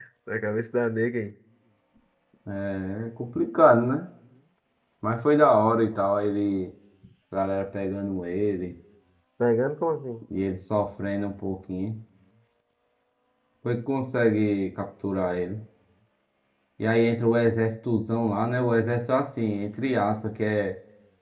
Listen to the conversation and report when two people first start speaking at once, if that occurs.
none

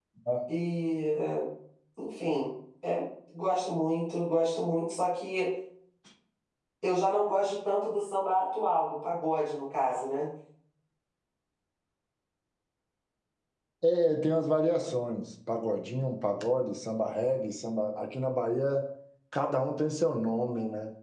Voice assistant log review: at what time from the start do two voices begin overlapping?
none

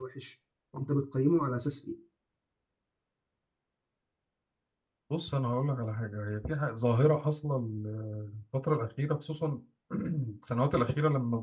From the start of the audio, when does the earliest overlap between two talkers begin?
none

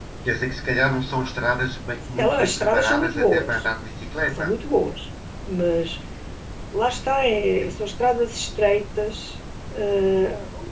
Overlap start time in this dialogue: 2 s

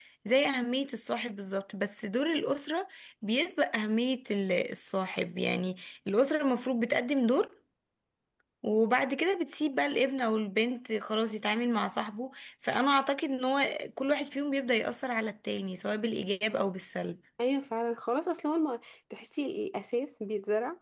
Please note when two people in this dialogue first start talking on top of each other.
none

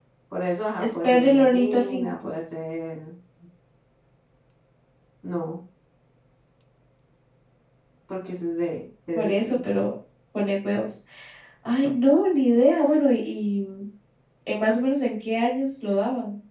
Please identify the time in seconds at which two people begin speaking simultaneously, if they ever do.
1 s

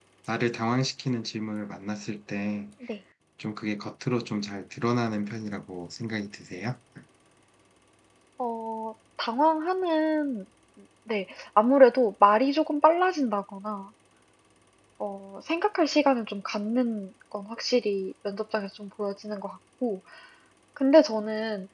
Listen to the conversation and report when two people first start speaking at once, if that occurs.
none

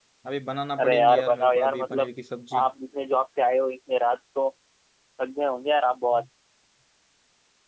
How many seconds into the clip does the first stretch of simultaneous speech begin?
1 s

